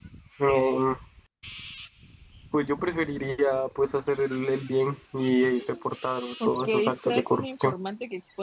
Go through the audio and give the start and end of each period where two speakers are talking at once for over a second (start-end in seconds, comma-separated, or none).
6.5-7.7